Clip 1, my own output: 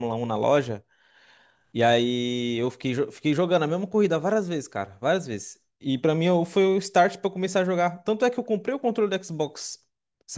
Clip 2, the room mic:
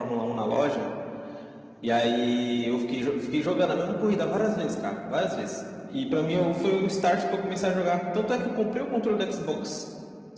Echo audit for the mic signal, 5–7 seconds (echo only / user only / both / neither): echo only